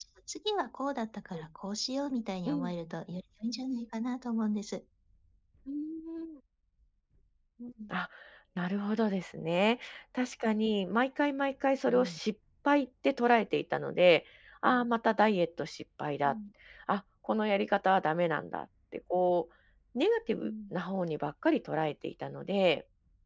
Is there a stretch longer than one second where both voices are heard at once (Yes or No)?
No